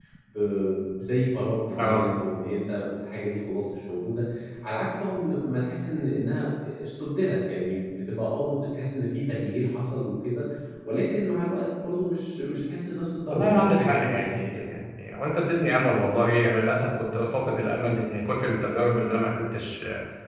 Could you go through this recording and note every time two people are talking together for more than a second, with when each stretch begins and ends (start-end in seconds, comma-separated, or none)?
13.3-14.7